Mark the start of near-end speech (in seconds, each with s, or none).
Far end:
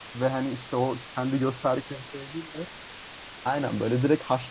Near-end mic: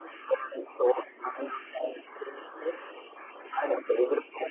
none